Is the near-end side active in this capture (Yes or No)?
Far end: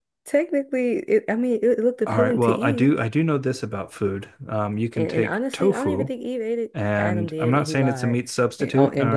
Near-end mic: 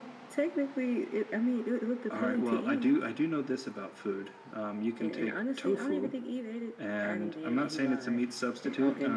No